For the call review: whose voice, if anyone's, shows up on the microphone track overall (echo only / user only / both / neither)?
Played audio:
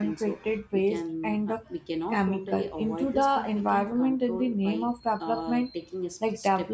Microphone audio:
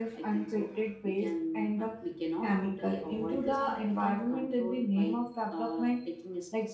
echo only